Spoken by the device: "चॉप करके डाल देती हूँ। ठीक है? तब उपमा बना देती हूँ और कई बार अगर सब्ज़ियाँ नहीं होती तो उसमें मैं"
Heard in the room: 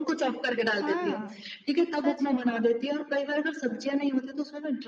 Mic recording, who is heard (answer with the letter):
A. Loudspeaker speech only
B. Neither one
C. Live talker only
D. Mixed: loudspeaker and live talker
D